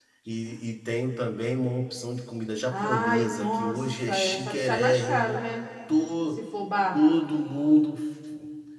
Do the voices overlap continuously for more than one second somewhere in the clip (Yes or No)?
Yes